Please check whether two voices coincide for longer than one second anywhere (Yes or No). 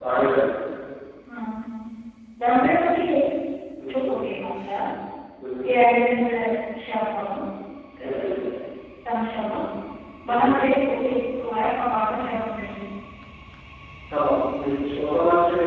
No